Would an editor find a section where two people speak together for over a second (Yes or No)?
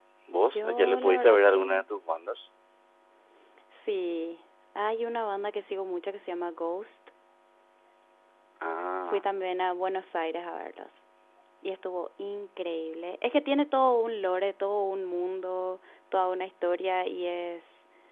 Yes